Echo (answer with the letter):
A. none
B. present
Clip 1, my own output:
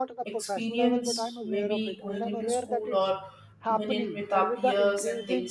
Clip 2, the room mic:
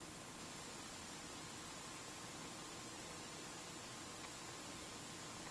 A